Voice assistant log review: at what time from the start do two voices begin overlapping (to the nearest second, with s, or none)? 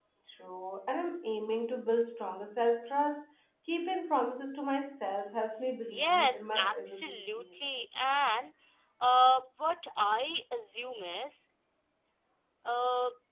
6 s